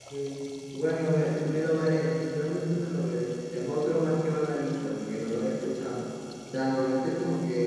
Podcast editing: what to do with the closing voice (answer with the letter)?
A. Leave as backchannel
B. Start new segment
A